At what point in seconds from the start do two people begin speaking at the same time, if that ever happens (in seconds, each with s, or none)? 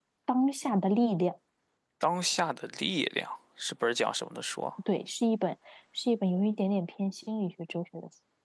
none